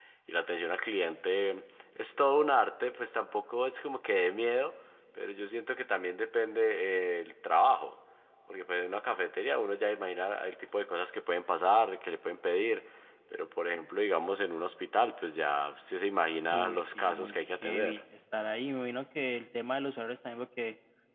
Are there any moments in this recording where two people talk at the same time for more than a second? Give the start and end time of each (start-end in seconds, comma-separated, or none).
16.5-18.0